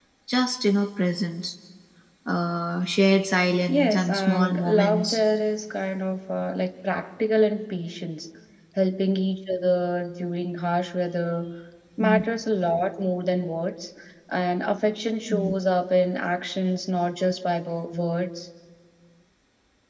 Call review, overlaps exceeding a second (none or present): present